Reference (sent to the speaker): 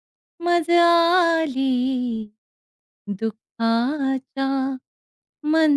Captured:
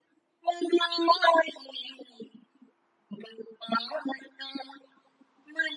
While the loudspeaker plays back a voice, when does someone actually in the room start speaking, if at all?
none

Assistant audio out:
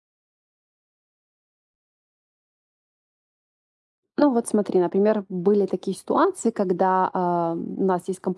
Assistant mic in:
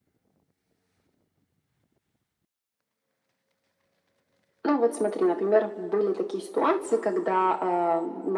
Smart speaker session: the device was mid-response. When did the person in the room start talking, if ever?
none

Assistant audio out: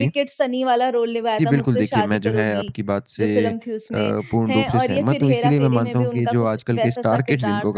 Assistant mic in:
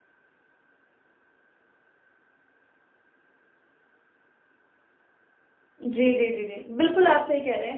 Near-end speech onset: 5.8 s

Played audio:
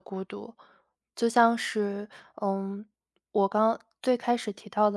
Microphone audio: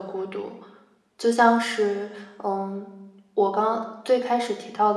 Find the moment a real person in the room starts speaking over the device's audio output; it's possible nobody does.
none

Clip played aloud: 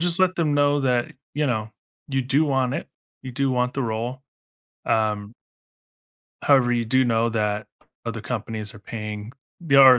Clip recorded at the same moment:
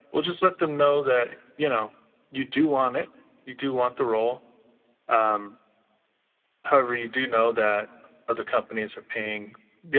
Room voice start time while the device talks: none

